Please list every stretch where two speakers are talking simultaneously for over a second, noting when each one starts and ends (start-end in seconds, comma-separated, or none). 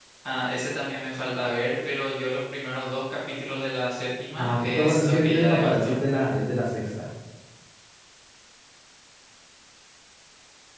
4.4-6.0